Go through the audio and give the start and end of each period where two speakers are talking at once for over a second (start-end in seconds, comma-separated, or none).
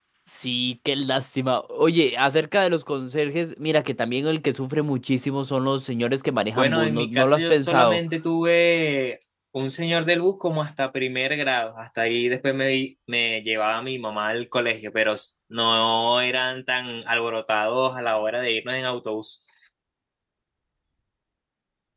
6.5-8.0